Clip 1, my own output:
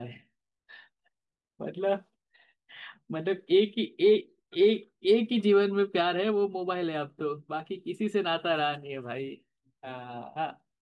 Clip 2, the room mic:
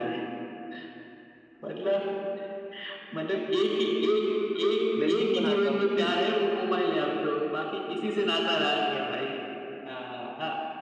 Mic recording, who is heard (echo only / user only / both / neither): both